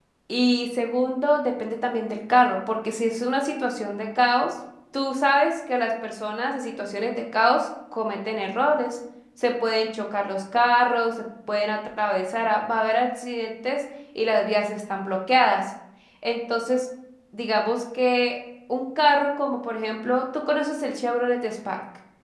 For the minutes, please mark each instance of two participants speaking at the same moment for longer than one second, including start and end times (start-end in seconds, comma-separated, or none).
none